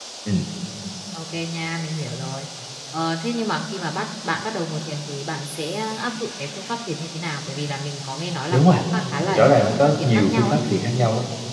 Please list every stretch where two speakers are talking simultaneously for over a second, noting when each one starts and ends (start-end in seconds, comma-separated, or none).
9.3-10.6